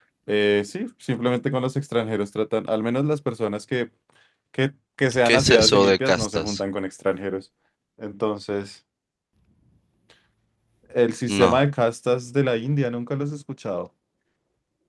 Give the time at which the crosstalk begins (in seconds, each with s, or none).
5.2 s